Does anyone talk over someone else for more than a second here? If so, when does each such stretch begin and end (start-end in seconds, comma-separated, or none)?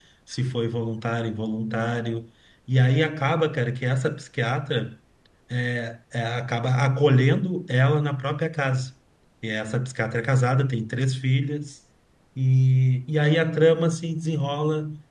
none